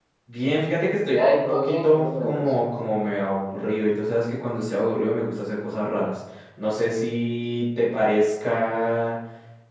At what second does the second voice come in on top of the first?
1.1 s

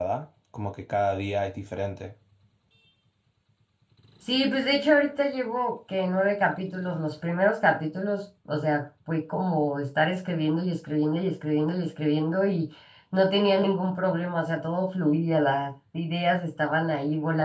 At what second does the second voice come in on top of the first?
none

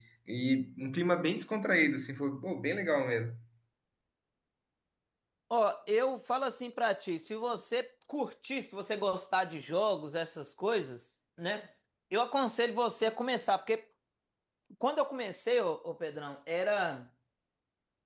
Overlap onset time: none

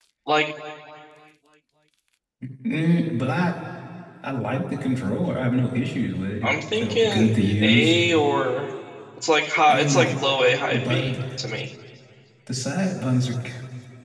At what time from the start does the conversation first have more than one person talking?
6.4 s

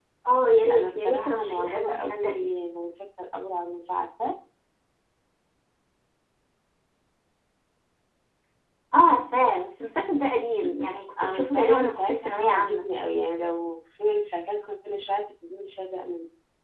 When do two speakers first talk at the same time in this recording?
0.7 s

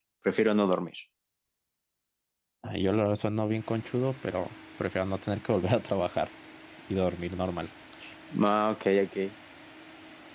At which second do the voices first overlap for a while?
none

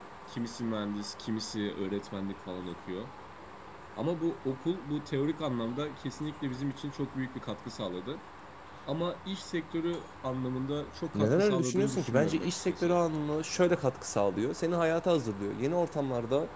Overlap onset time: 11.1 s

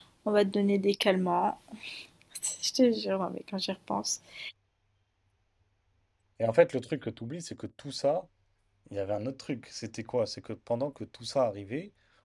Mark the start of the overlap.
none

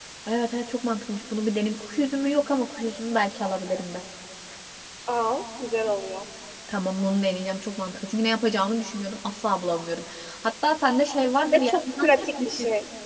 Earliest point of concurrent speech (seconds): 11.5 s

